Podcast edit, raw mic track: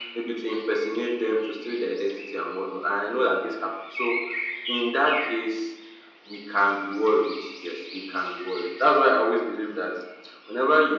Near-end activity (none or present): none